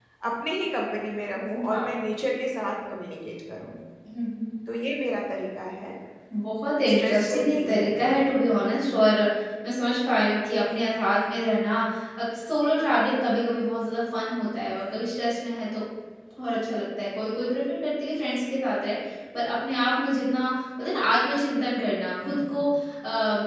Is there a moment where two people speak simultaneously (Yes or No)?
Yes